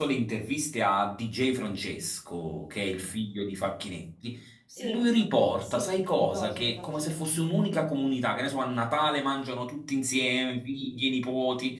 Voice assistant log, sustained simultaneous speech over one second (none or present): present